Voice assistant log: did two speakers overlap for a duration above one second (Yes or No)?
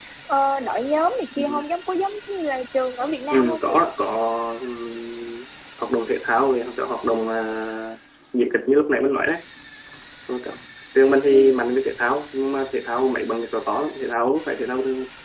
No